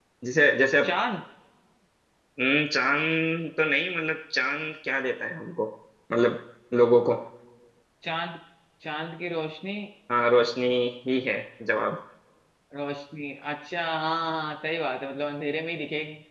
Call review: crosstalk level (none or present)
none